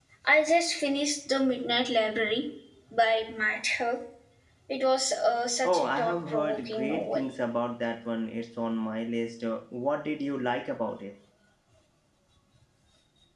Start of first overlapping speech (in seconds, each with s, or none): 5.6 s